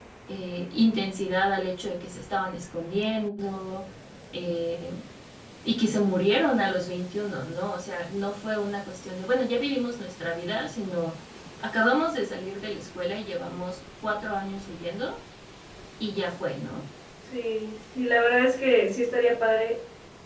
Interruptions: none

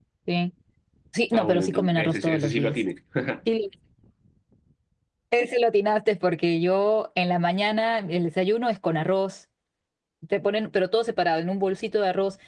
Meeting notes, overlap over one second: present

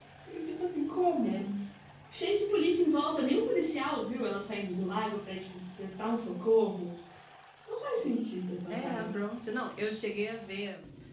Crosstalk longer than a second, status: none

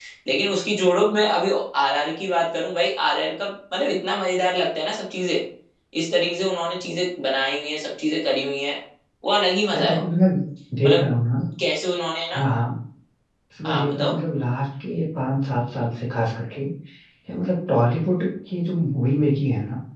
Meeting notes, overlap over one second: none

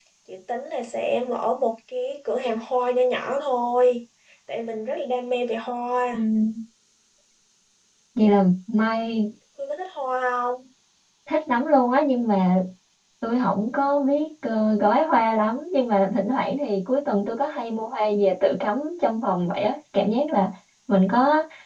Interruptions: none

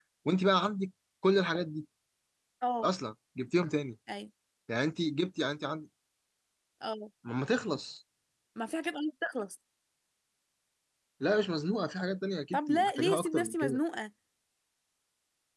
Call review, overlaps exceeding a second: present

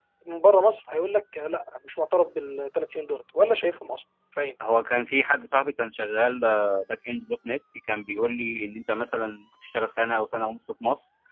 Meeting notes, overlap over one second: none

